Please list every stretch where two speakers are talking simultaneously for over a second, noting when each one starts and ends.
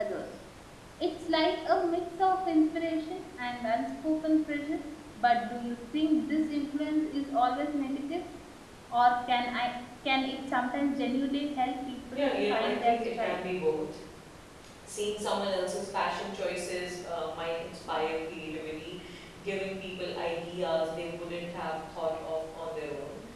12.1-13.4

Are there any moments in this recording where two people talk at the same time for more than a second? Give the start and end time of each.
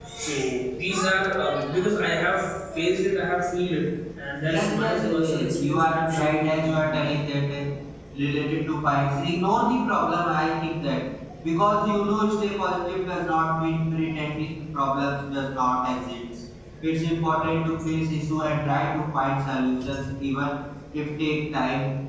4.4-7.0

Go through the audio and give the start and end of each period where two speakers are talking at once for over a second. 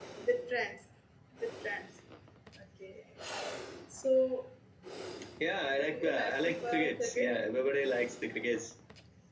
5.9-7.4

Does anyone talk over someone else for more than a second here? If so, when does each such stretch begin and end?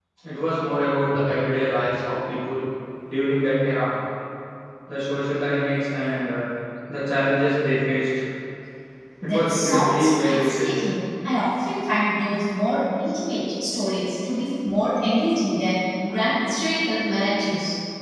9.2-10.8

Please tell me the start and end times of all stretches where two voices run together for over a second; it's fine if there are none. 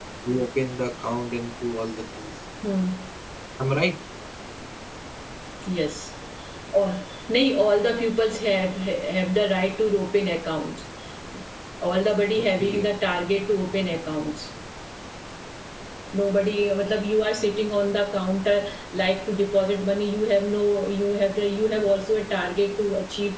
none

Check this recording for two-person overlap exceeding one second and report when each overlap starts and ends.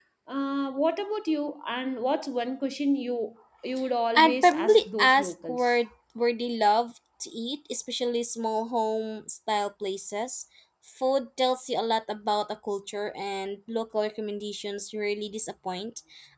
4.2-5.7

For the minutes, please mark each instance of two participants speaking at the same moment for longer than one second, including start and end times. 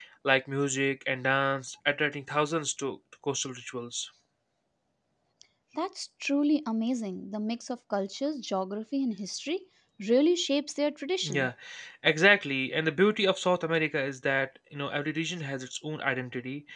none

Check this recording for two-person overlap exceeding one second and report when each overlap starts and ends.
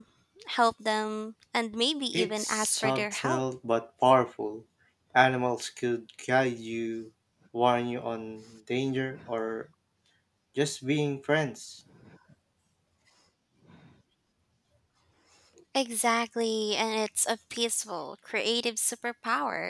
2.1-3.4

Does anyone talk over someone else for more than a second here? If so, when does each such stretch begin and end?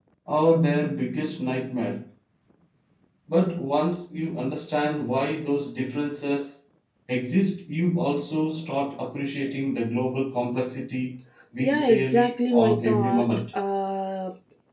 11.6-13.2

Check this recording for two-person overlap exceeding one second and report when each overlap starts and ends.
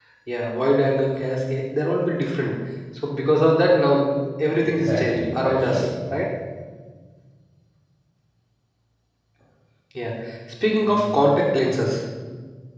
4.6-5.9

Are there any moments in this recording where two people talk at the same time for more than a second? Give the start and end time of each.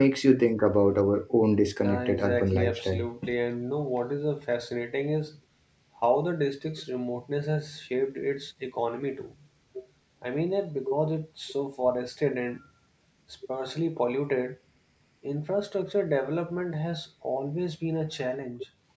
1.8-3.1

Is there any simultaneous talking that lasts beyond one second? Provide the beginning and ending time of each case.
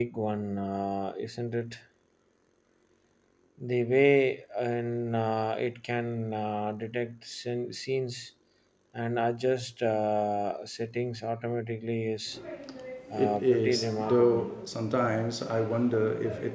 13.1-14.5

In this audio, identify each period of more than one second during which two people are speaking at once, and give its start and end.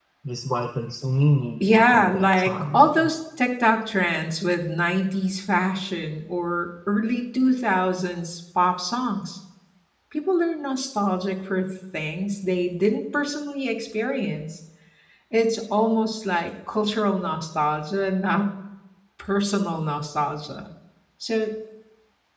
1.7-3.1

